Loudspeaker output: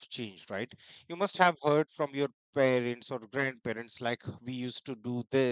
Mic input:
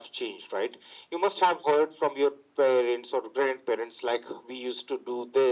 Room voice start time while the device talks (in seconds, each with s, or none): none